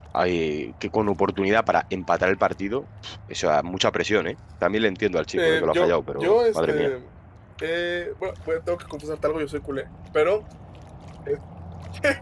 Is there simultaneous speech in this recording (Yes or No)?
Yes